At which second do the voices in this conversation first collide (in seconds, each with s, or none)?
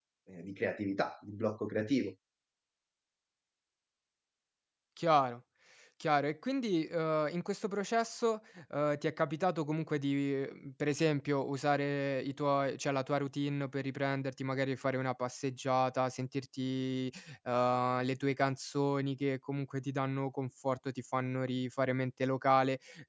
none